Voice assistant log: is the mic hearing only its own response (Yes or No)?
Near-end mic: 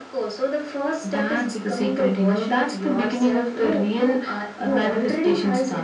Yes